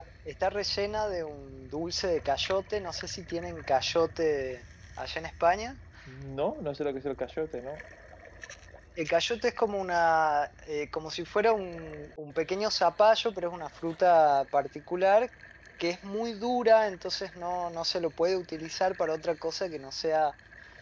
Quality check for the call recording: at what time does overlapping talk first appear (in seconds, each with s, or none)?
none